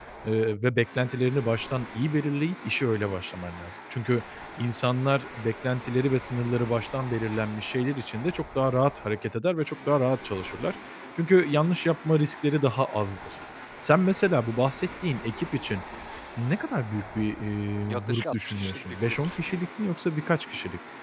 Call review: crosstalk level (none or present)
present